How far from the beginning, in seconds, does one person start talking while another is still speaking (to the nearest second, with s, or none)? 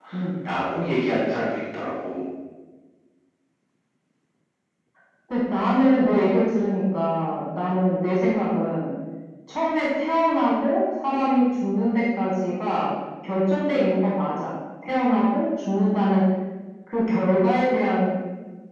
none